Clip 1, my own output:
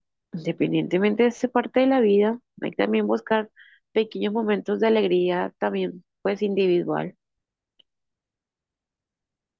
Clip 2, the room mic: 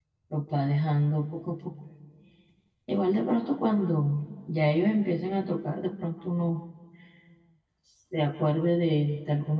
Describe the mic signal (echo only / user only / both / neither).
user only